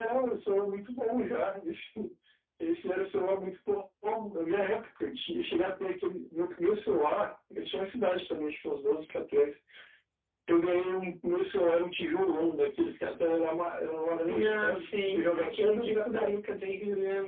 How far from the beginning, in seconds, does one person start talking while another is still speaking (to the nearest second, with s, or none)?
14 s